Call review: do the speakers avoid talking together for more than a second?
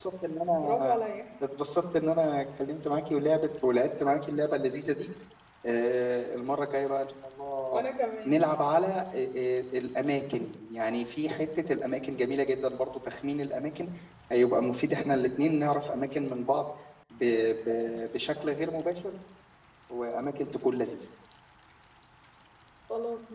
Yes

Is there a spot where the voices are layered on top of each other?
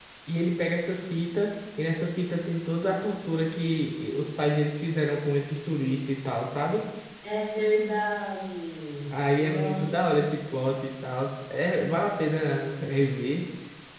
Yes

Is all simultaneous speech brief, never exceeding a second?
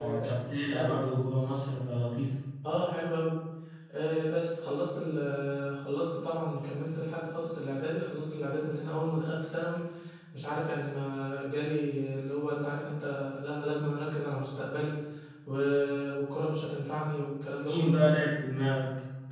Yes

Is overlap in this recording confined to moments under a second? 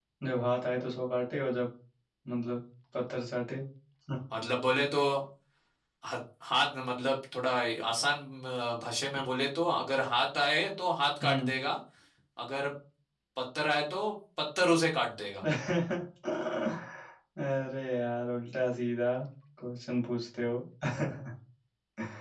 Yes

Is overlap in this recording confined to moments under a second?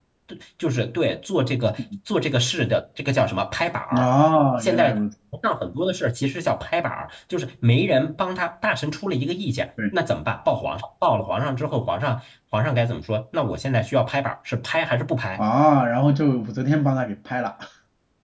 Yes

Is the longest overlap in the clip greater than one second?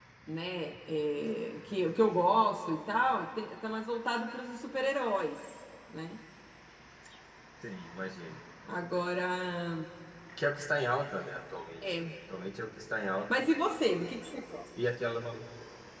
No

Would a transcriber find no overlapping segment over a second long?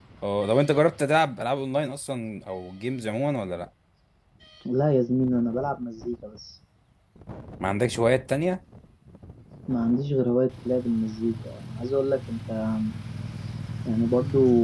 Yes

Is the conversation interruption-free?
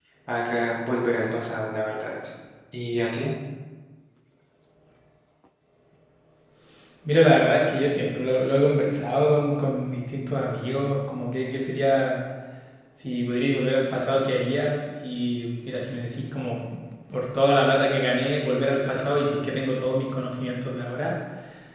Yes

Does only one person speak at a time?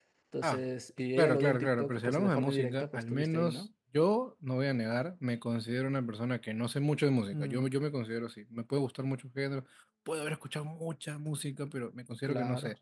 No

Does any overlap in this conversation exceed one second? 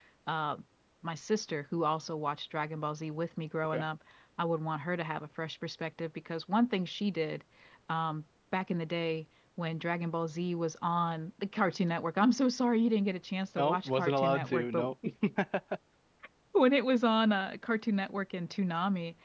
Yes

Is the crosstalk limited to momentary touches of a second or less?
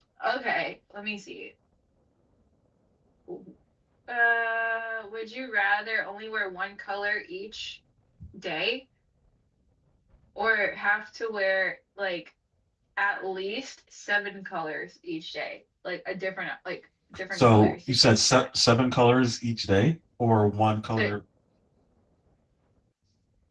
No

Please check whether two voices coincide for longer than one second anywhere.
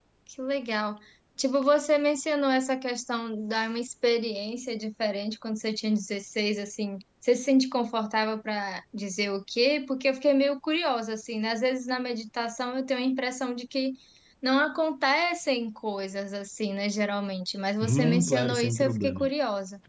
Yes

